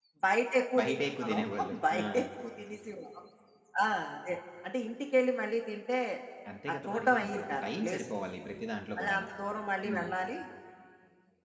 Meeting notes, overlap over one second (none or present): present